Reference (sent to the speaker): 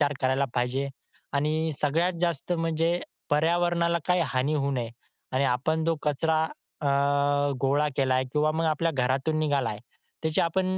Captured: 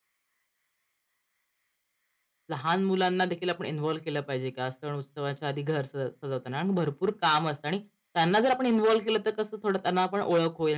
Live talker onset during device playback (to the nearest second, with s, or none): 3 s